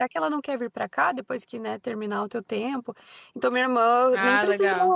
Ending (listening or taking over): listening